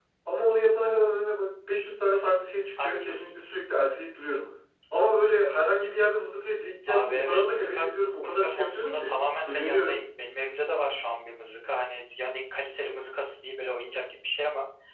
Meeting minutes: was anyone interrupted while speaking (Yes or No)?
Yes